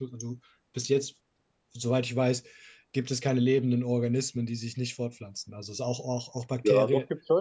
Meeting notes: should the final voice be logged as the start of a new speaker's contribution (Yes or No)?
Yes